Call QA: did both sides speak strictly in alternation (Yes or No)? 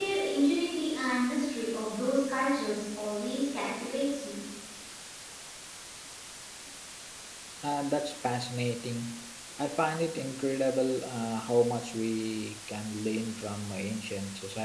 Yes